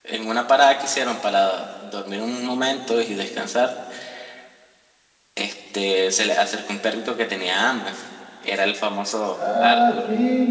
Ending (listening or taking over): taking over